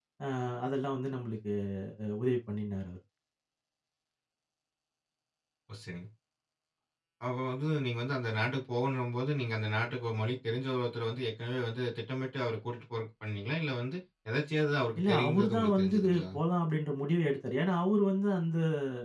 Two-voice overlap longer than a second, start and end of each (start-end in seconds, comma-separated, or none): 15.0-16.2